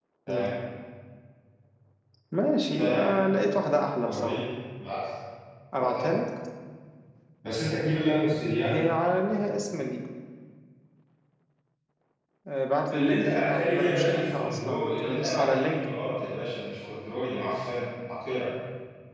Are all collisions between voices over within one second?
No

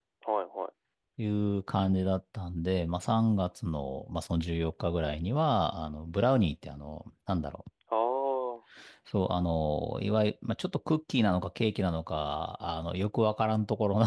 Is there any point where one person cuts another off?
No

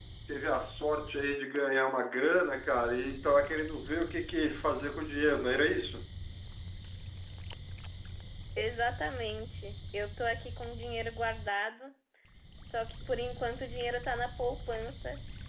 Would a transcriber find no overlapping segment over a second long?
Yes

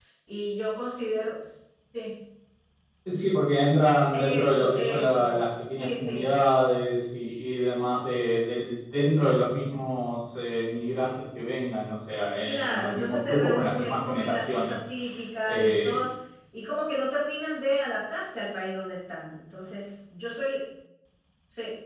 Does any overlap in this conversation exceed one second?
Yes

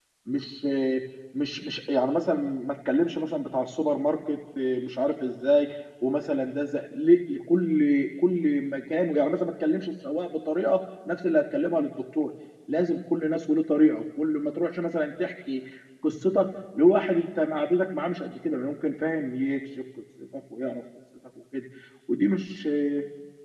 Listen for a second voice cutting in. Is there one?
No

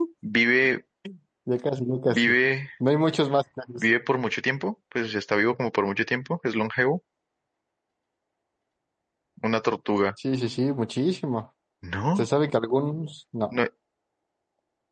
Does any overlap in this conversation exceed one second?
No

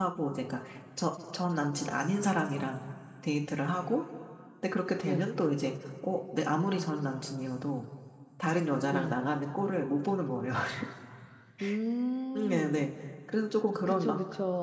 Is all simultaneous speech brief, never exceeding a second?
Yes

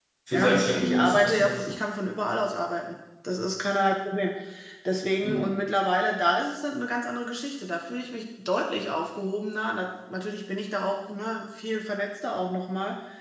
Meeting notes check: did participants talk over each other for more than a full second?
Yes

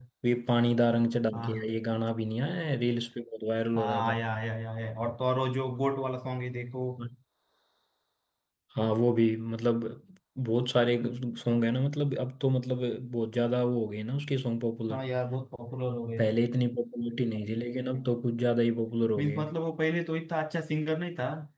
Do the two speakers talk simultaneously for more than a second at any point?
No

